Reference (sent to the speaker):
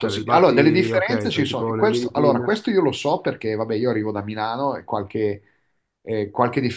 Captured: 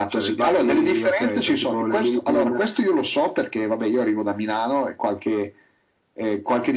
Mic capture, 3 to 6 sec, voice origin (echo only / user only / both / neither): echo only